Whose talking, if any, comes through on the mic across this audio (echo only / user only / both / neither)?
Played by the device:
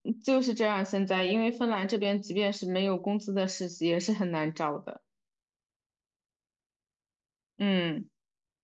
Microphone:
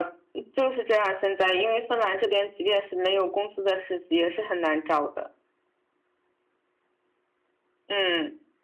echo only